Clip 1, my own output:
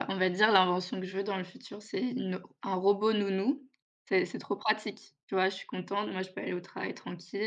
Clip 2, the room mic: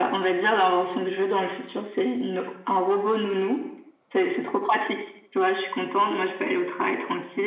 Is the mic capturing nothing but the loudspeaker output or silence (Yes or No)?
Yes